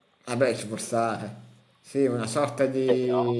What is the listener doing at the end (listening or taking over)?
listening